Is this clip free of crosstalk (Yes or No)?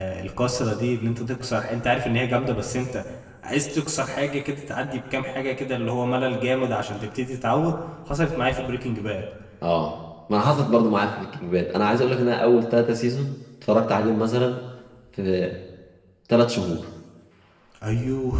Yes